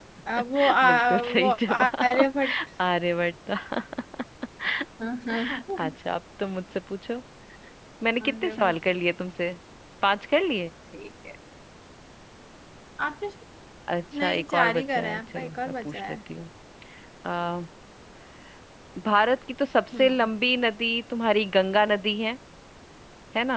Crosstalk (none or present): present